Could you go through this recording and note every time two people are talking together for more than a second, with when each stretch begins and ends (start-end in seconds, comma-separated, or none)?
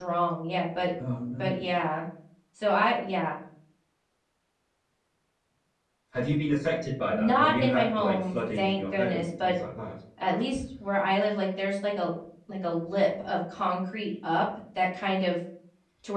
7.1-9.6